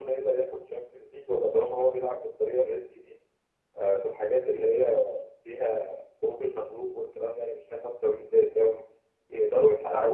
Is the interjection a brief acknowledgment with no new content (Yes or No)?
Yes